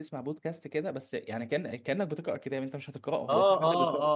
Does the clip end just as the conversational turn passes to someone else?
Yes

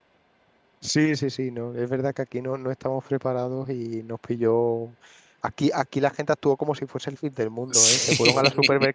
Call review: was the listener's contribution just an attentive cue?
Yes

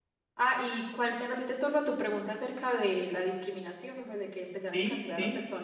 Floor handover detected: Yes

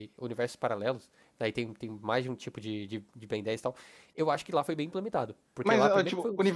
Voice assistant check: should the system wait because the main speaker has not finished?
No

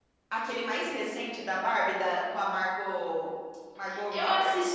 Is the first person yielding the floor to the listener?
Yes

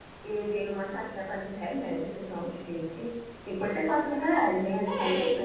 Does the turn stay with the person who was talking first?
No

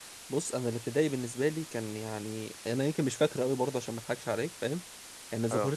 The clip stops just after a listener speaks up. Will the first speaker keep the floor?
Yes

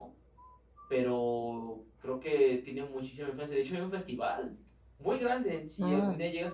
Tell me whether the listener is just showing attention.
Yes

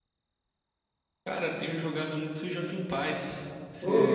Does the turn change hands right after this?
Yes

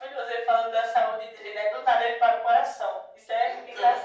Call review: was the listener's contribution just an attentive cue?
No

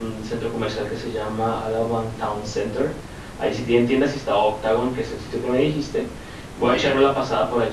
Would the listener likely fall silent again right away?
Yes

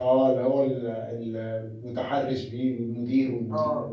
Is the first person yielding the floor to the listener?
Yes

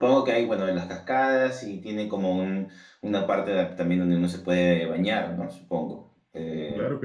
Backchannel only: No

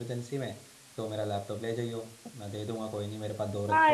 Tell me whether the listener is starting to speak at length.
Yes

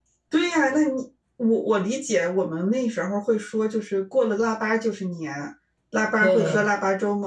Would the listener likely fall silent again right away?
Yes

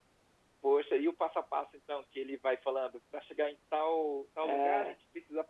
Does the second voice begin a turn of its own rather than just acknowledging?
No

